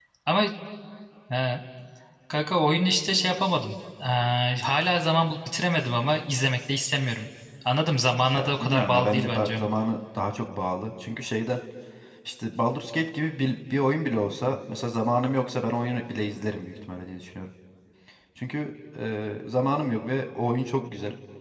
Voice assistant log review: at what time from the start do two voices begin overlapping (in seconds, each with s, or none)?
8.3 s